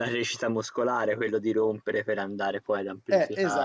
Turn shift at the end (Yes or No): Yes